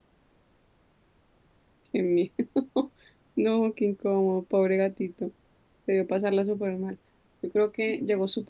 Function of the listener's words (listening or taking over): listening